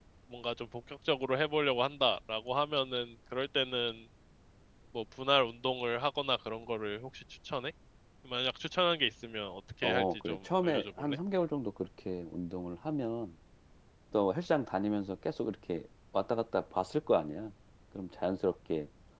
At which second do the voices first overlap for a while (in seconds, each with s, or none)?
9.8 s